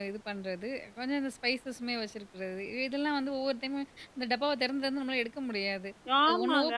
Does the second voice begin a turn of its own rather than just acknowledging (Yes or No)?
Yes